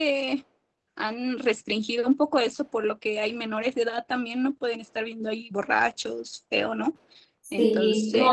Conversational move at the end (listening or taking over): taking over